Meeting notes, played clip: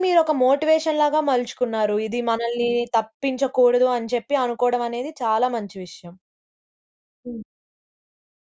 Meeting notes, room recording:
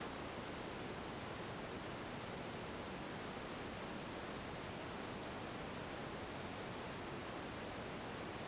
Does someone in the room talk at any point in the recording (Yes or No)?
No